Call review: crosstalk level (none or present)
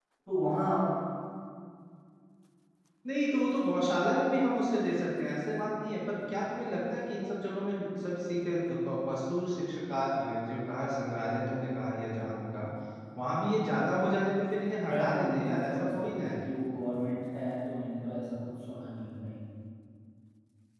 present